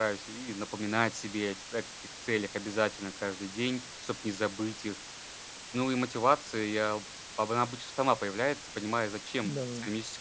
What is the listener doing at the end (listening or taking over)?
listening